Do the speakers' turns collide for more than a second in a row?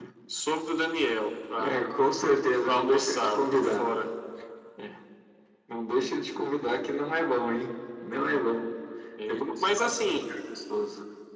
Yes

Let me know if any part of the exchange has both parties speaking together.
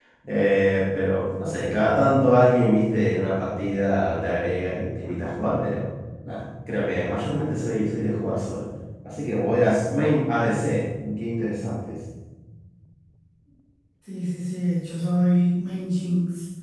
No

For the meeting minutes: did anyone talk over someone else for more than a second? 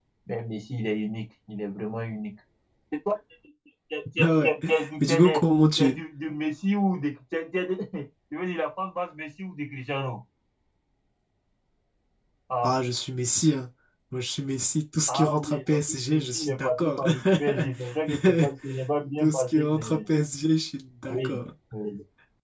Yes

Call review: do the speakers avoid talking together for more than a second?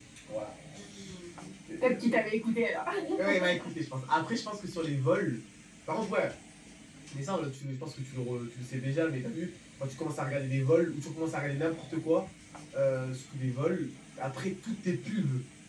Yes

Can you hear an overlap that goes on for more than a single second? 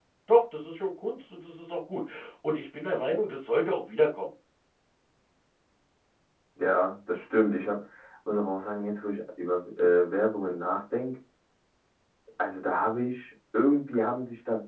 No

